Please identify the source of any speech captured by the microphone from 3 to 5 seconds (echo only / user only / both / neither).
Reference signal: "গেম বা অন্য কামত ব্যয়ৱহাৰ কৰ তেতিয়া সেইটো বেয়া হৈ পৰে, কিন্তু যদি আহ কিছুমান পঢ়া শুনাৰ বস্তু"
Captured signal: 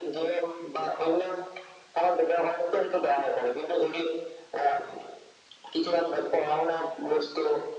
echo only